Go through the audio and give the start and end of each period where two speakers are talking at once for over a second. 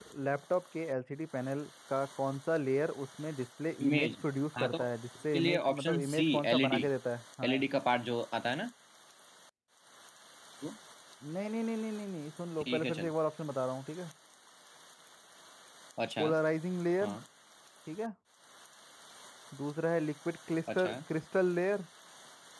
5.3-6.8

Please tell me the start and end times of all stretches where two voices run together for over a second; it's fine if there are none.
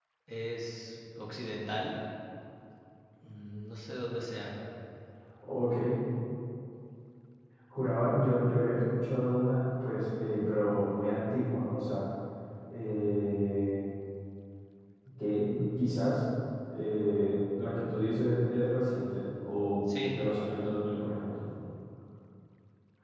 none

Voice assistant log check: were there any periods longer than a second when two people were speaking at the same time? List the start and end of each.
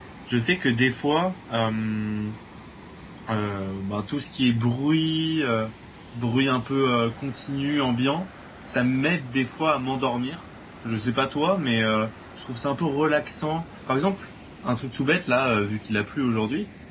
none

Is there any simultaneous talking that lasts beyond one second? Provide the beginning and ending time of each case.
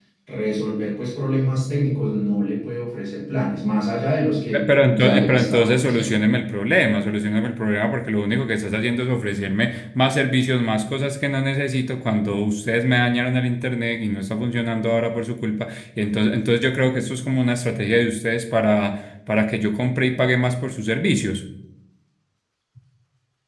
4.5-6.1

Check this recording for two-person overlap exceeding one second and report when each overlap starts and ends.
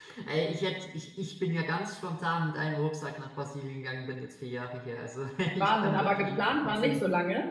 5.6-7.0

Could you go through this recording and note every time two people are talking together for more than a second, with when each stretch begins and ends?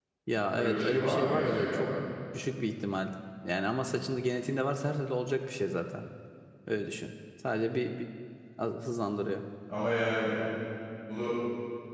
0.6-1.9

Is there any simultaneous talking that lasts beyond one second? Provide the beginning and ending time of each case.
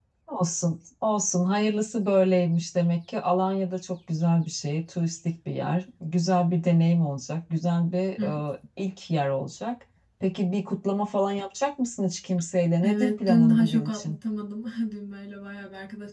12.8-14.2

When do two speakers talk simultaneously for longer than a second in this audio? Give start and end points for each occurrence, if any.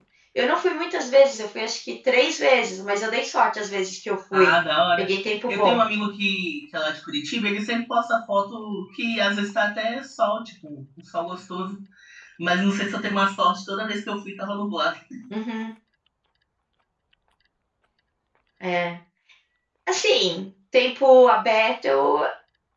none

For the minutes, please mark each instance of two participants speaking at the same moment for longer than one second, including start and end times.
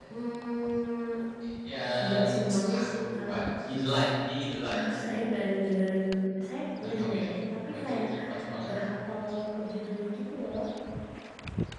2.0-3.4

